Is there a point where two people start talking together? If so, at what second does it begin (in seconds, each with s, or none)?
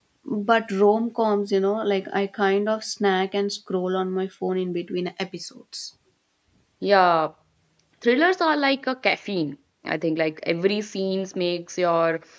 none